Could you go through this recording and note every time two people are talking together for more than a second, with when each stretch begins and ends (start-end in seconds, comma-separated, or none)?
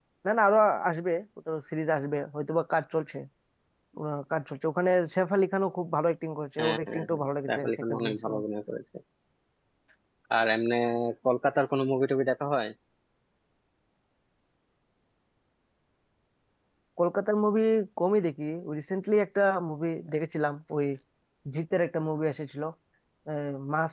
6.6-8.4